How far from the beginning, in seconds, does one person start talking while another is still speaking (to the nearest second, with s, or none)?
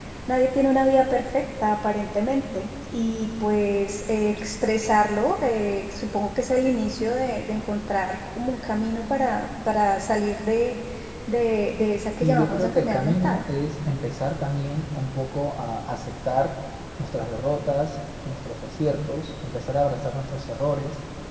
12 s